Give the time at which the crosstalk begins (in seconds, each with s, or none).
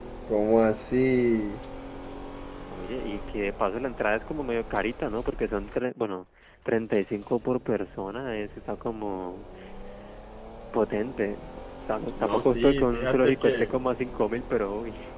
12.2 s